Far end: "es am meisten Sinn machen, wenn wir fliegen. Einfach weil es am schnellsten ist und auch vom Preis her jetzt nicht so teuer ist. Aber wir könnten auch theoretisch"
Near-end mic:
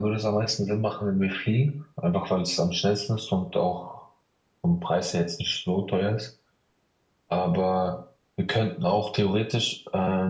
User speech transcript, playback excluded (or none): none